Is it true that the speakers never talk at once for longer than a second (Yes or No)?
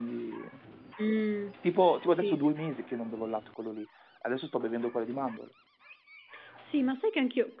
Yes